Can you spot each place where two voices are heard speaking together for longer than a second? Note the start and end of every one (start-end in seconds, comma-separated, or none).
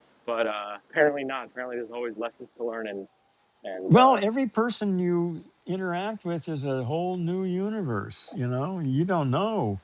none